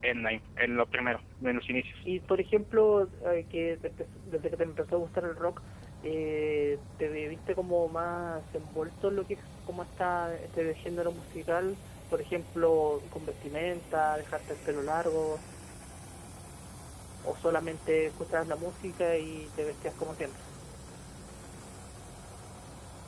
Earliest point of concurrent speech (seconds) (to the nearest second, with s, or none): none